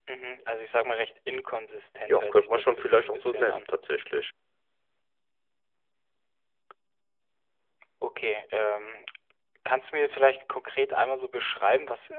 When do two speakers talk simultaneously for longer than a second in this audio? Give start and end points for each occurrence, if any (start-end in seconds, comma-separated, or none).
2.1-3.6